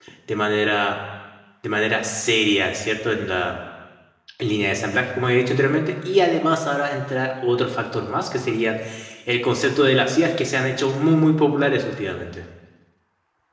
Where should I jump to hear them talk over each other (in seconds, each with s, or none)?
none